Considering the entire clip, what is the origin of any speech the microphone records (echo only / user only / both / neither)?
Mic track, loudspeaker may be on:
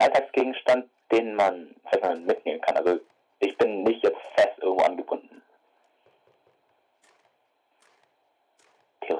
echo only